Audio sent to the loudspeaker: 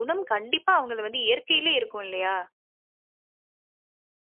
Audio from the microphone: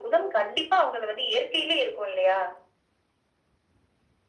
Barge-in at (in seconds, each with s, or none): none